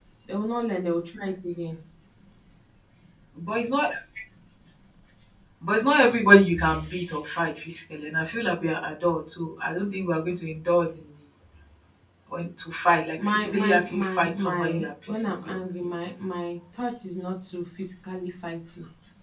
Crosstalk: present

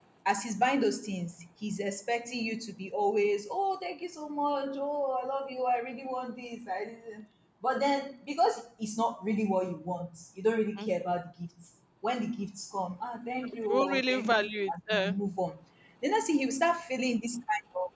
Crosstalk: present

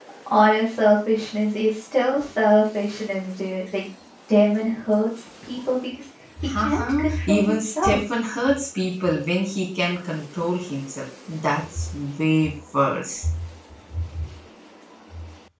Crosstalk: present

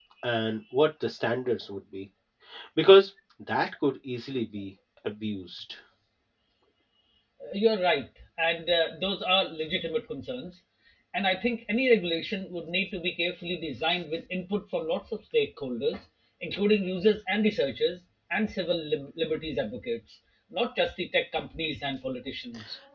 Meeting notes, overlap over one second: none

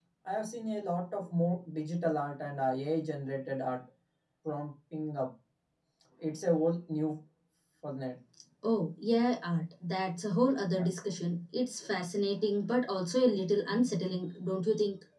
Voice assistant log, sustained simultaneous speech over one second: none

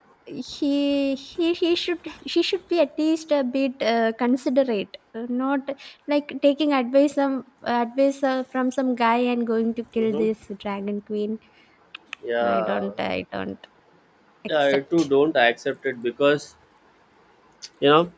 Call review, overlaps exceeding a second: none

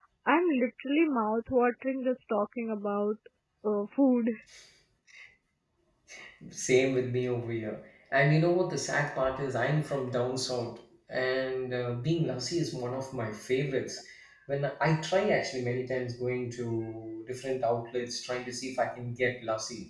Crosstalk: none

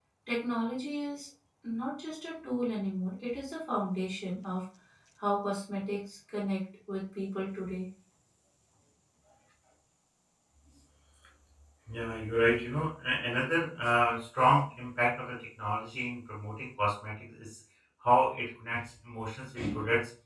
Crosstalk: none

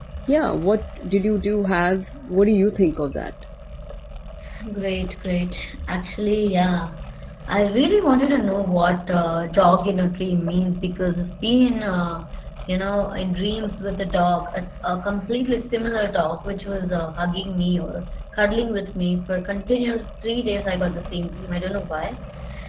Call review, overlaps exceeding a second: none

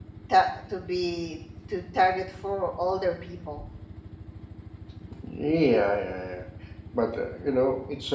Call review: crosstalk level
none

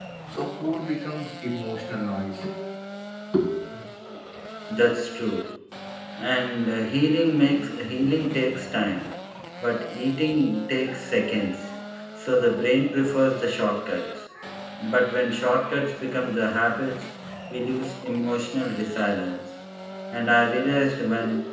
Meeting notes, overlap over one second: none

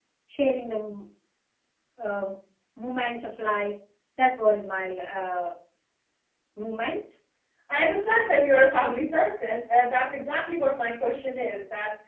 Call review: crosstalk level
none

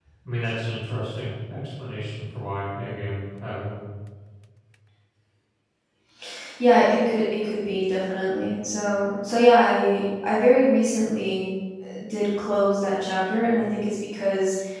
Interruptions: none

